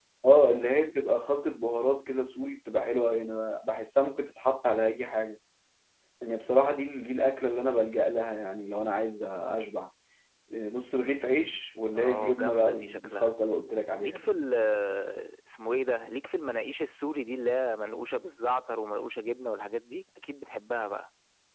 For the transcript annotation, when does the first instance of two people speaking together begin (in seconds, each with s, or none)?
12.0 s